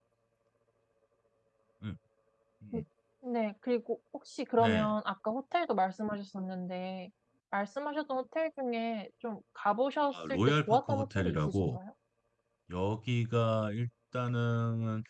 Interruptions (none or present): present